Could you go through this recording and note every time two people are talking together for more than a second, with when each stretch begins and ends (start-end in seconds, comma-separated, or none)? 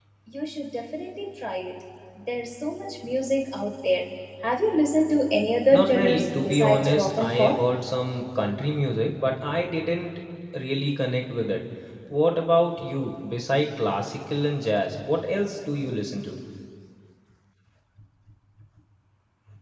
5.7-7.7